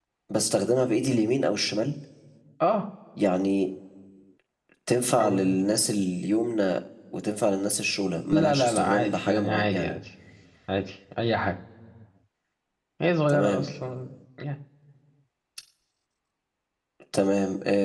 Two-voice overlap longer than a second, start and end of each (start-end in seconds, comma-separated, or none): 8.3-9.9